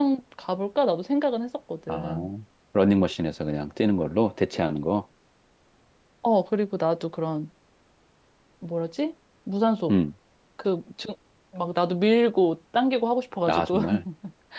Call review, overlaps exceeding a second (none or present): none